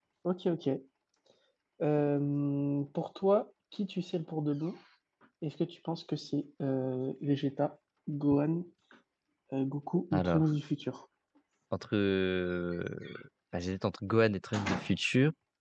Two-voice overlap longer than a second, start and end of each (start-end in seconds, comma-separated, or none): none